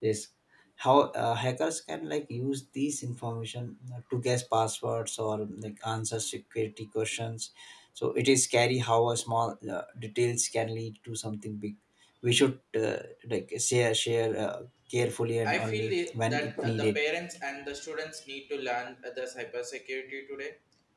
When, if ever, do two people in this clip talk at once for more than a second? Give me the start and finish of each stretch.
15.5-17.0

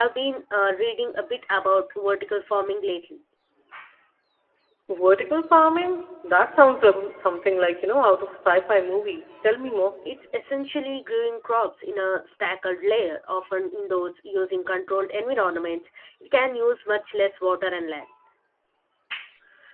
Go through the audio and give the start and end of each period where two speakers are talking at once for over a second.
none

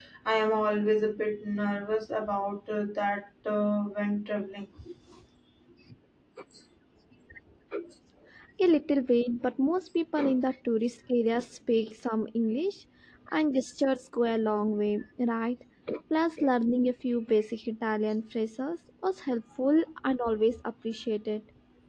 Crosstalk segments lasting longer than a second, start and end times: none

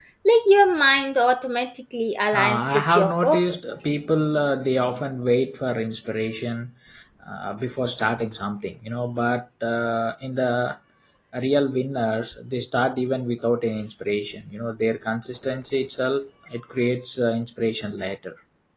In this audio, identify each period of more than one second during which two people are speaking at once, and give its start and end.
2.3-3.8

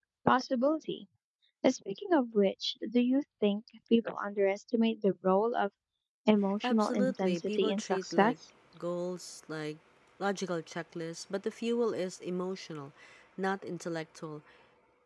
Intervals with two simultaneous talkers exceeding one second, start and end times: 6.6-8.3

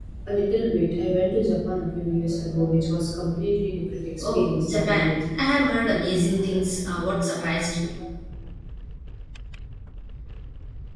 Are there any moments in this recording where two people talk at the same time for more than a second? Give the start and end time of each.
4.2-5.6

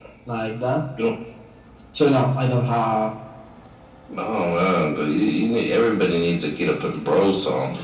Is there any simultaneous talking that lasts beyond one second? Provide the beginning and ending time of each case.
none

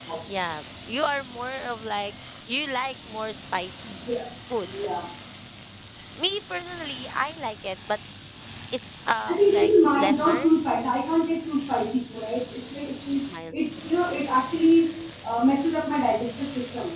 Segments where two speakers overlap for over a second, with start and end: 9.3-10.5

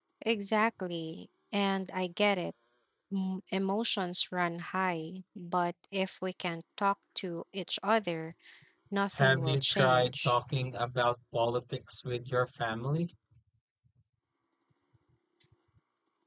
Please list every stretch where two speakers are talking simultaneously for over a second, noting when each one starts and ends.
9.1-10.4

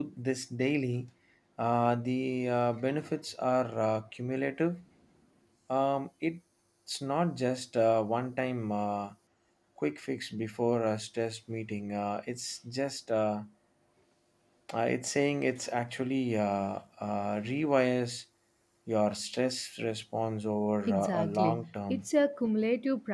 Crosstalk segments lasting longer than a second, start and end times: 20.9-22.1

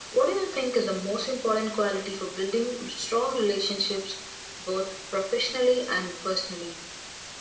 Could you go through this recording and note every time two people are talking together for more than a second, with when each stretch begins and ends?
none

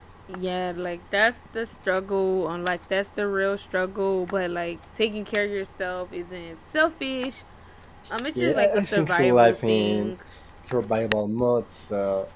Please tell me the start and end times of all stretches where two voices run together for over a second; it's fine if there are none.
8.3-10.1

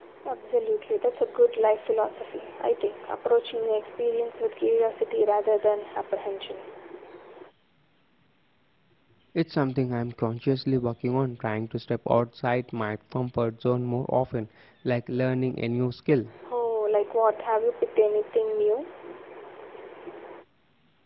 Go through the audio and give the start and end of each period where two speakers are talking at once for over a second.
none

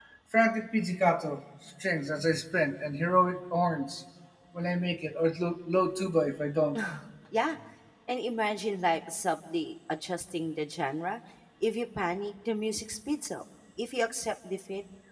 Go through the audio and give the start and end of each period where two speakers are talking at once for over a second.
none

